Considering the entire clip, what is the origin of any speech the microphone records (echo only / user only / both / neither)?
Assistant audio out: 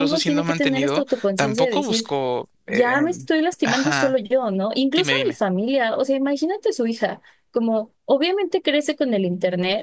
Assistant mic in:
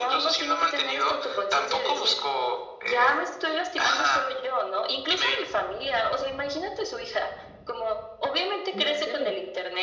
both